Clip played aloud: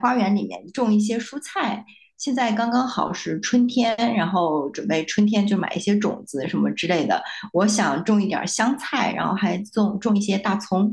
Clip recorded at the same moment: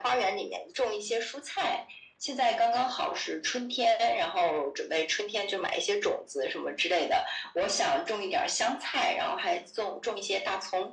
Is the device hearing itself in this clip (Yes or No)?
Yes